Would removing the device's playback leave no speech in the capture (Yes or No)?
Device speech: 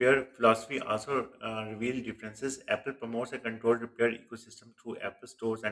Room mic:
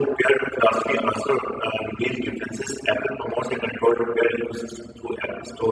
Yes